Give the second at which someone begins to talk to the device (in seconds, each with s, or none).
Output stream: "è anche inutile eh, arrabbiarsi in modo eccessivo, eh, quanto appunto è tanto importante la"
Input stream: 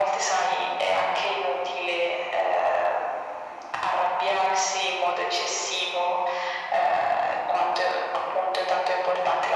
none